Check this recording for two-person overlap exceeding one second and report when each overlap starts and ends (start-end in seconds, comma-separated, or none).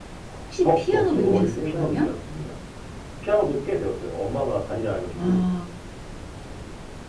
0.6-2.1